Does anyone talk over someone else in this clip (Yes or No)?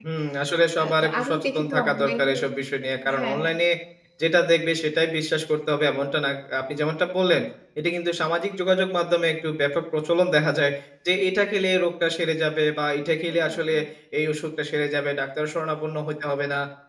Yes